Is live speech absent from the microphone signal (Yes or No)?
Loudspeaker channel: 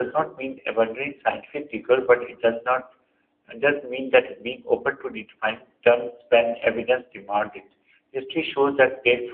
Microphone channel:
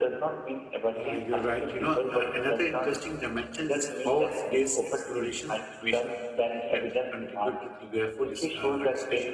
No